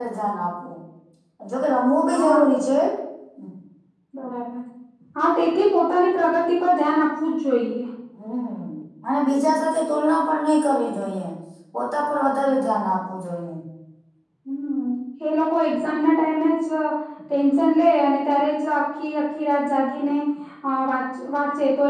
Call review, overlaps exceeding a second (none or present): none